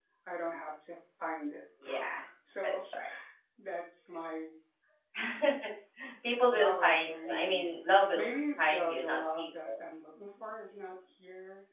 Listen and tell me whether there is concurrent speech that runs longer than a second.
Yes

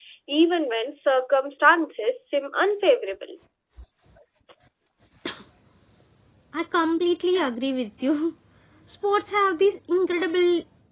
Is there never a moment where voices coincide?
Yes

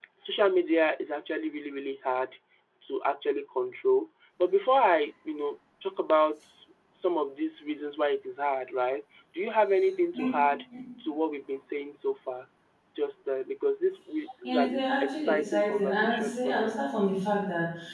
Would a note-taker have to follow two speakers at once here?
Yes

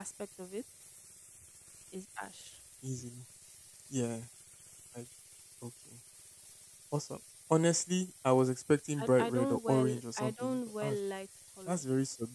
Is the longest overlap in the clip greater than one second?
Yes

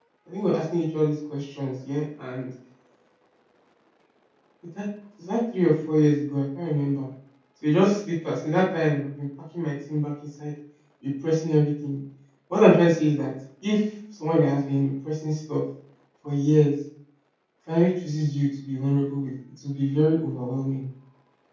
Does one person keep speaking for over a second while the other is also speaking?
No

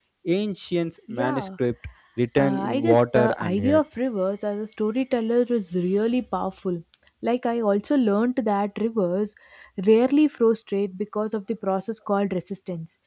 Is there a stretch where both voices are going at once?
Yes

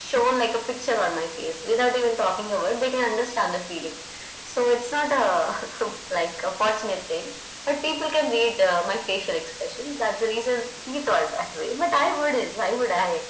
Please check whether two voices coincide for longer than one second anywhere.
No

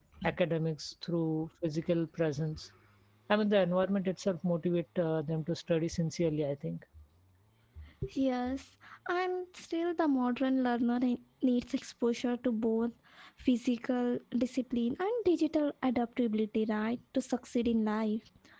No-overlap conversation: Yes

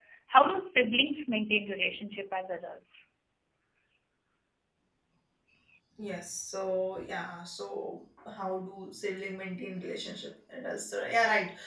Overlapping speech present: No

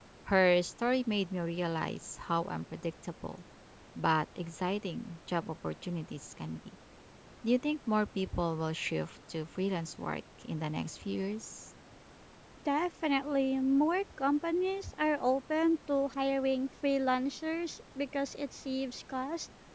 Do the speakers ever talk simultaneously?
No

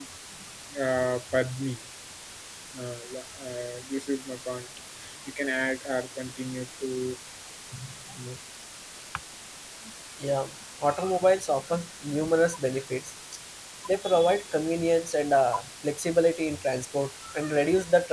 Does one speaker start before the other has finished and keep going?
No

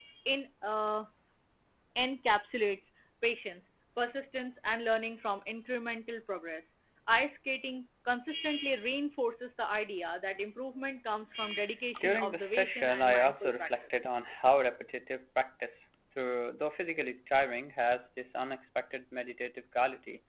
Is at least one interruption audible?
Yes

